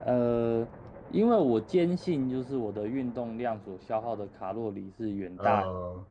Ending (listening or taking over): listening